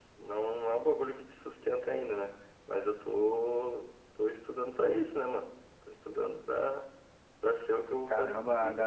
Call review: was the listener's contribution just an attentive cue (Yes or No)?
No